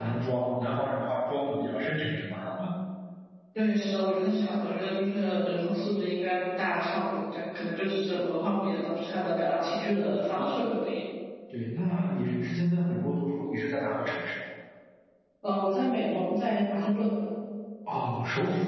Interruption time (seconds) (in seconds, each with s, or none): none